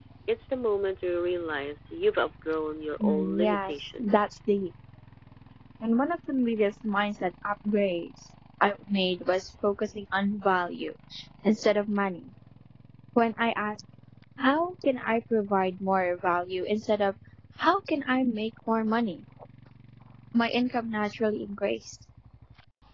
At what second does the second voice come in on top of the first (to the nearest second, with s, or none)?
3 s